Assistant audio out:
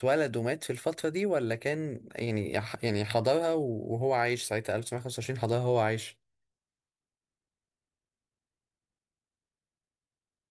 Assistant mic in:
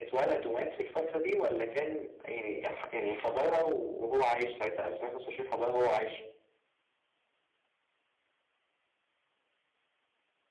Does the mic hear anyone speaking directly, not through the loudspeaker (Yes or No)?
No